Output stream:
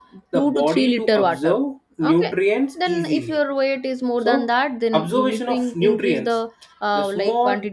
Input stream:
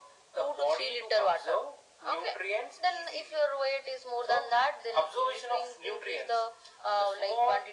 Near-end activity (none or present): none